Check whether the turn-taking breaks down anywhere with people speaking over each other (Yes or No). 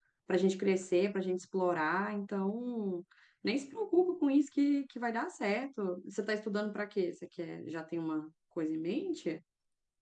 No